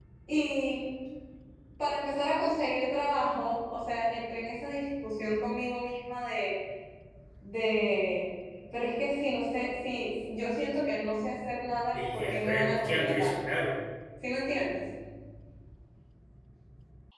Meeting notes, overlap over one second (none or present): present